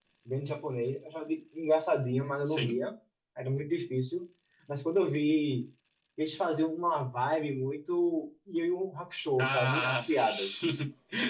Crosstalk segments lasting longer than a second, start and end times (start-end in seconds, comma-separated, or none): 9.4-10.6